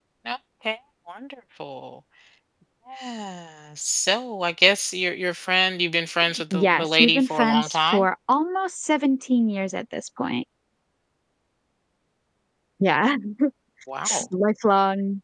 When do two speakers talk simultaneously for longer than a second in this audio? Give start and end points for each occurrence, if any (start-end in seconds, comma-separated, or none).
6.5-8.1